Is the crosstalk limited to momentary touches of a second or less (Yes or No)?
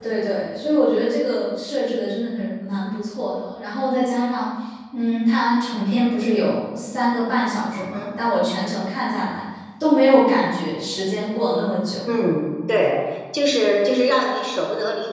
Yes